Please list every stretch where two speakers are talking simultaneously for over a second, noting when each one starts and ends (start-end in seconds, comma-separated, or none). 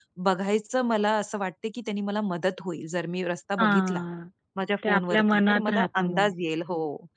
4.8-6.3